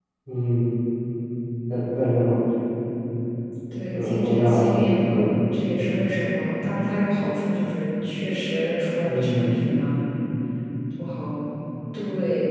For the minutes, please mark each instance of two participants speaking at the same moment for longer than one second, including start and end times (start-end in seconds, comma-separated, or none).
3.9-5.4